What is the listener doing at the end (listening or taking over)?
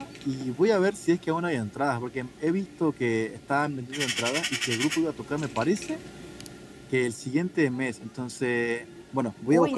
listening